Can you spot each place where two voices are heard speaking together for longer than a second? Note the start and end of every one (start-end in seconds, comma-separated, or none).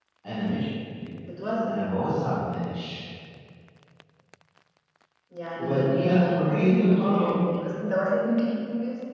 5.6-7.4